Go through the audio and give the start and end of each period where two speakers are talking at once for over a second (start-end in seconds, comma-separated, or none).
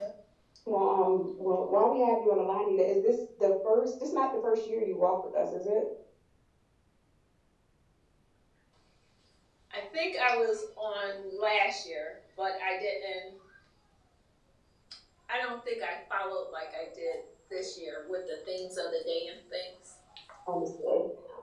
none